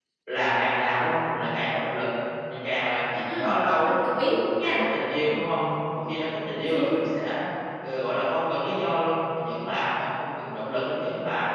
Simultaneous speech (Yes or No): Yes